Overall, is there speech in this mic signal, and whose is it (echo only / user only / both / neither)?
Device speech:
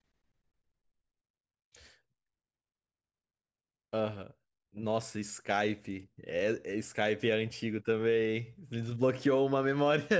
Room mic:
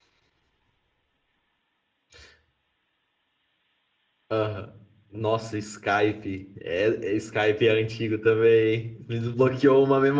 echo only